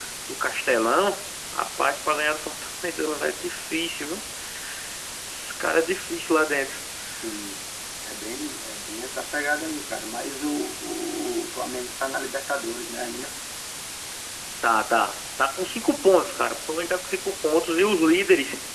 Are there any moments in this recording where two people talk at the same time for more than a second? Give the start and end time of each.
none

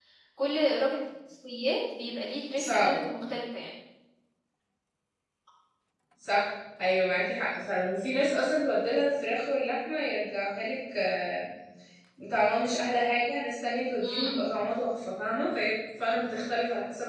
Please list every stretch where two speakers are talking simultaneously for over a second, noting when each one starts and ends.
none

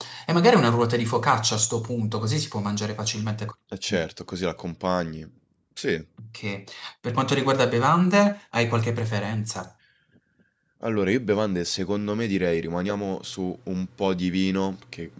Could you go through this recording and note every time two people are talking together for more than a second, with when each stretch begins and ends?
none

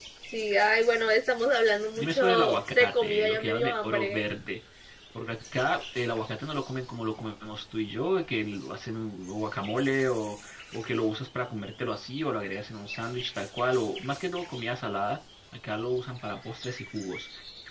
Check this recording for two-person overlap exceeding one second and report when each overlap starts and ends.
2.0-4.2

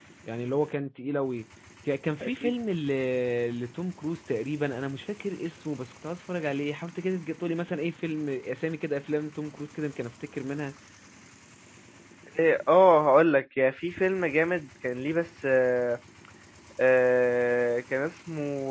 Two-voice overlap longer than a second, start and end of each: none

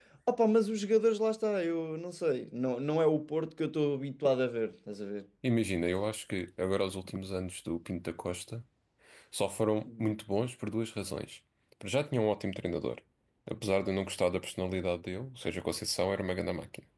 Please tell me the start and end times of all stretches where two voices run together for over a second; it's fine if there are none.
none

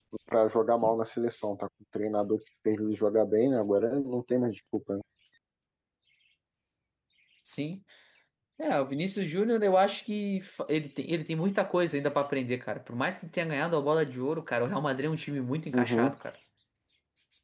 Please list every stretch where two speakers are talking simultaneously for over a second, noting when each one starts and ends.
none

